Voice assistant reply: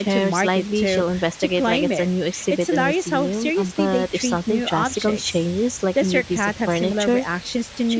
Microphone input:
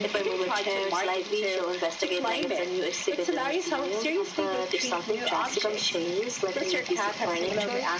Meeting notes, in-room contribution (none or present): none